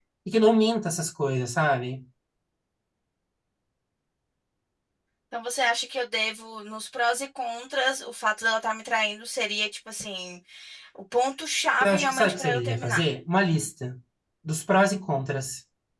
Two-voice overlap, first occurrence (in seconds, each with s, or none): 11.8 s